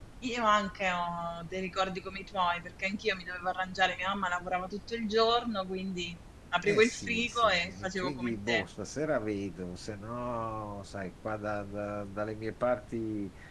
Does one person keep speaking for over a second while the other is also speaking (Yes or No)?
Yes